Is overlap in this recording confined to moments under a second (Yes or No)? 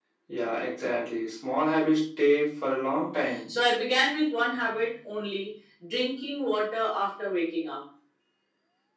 Yes